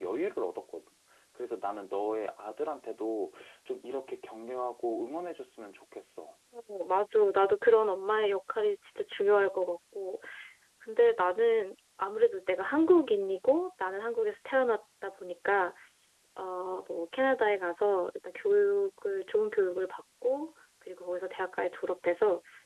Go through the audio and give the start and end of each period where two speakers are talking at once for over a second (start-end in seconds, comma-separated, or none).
none